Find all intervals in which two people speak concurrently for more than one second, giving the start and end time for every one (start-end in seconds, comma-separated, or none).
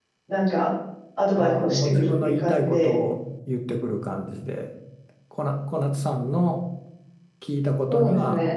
1.3-2.9